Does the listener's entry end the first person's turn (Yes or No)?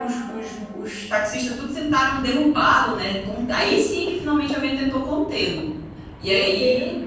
No